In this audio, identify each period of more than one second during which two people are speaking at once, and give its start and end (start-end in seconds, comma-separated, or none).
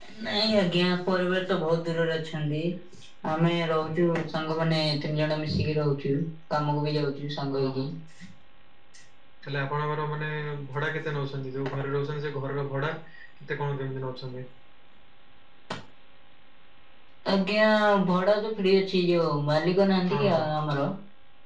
none